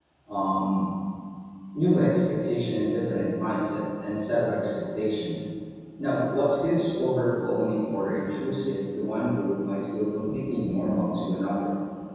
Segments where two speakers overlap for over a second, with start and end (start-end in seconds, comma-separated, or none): none